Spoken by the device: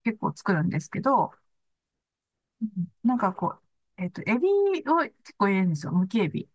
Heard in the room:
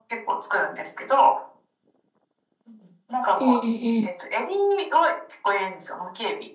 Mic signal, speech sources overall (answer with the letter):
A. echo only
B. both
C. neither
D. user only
B